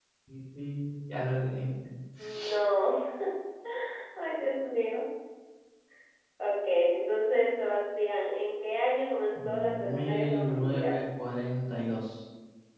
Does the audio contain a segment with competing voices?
Yes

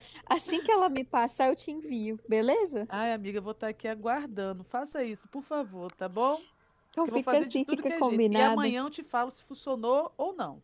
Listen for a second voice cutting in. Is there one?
Yes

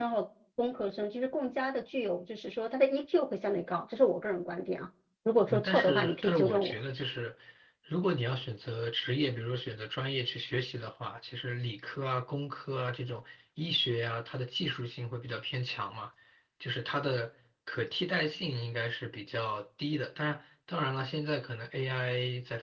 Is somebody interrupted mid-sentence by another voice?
Yes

